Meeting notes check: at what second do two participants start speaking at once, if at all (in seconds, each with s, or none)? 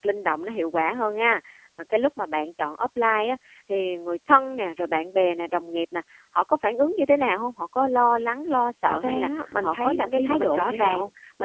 9.0 s